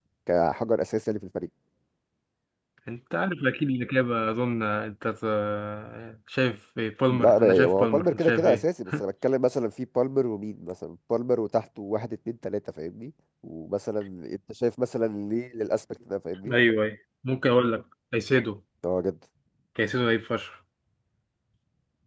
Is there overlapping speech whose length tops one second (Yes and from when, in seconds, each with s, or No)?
Yes, from 7.1 s